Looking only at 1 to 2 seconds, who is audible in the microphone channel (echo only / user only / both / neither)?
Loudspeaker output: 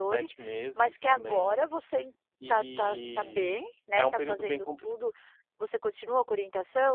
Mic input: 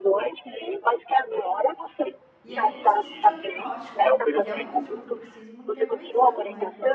echo only